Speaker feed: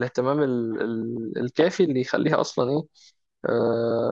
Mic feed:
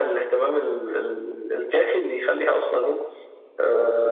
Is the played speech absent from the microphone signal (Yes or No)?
No